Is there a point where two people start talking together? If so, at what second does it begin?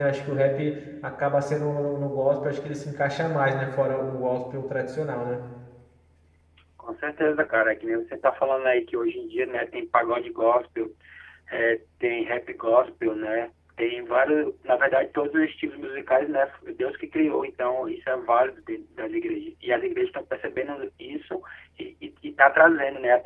none

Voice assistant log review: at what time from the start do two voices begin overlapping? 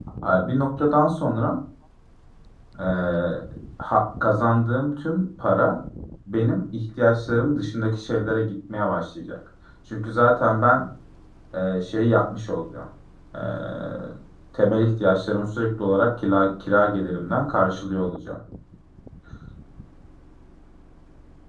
none

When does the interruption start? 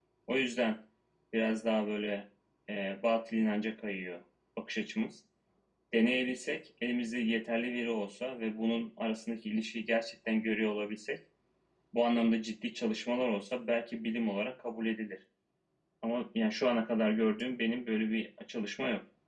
none

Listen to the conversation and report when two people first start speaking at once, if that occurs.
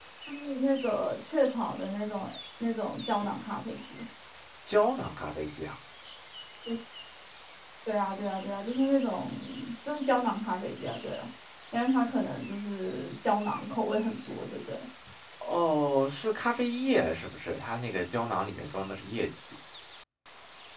none

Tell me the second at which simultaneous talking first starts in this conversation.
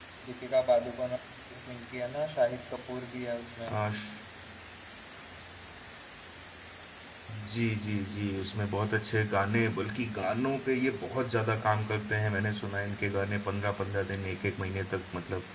none

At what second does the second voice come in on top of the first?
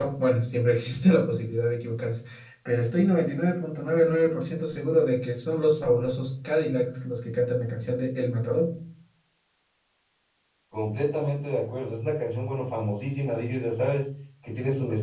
none

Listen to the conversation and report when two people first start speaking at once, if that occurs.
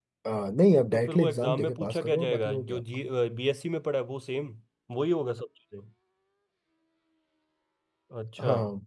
0.9 s

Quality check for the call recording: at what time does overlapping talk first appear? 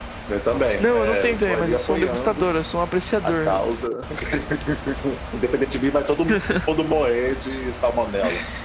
0.8 s

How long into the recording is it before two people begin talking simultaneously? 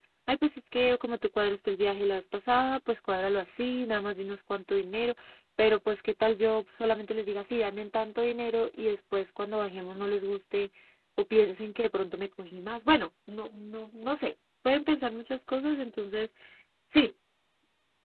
none

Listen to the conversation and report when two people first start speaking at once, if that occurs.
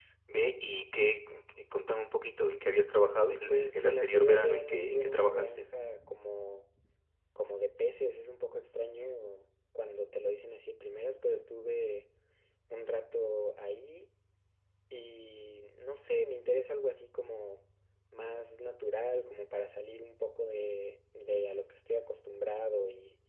3.5 s

